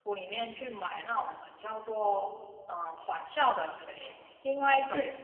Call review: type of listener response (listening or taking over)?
listening